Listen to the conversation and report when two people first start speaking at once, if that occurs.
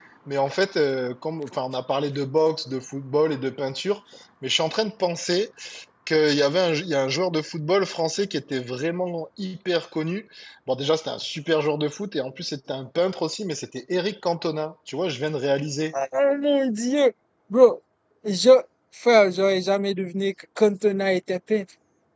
none

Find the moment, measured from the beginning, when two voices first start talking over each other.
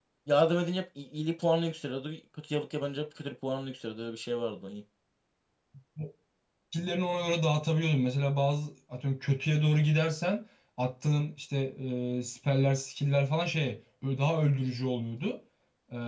none

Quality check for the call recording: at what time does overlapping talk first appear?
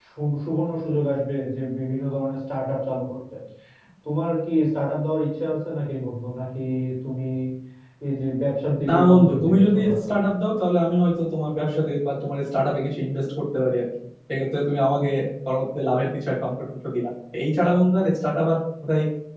8.9 s

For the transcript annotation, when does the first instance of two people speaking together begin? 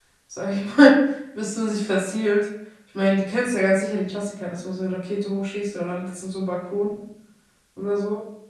none

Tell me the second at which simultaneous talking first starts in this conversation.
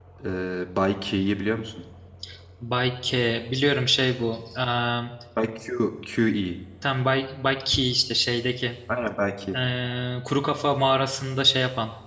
none

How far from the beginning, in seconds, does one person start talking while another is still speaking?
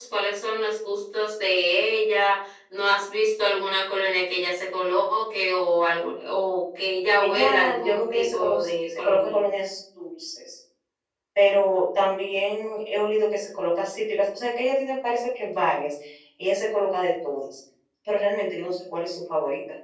7.2 s

